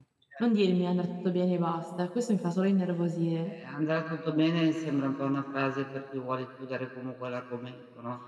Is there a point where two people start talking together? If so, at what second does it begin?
none

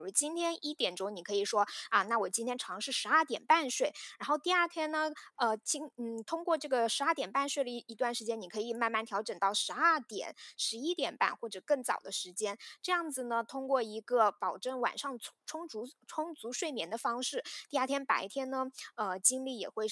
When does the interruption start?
none

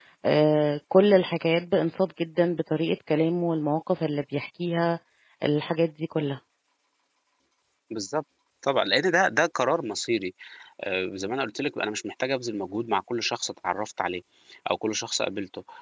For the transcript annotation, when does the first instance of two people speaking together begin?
none

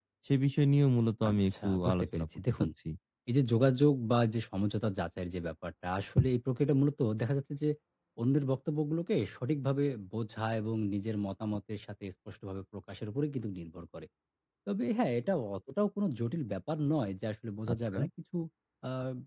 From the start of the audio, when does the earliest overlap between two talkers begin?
1.3 s

